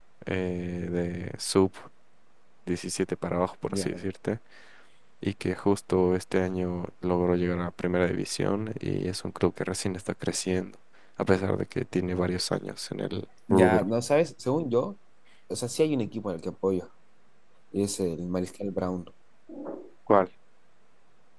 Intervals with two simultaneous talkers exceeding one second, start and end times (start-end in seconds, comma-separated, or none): none